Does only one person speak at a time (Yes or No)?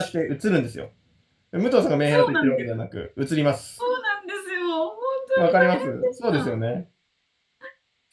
No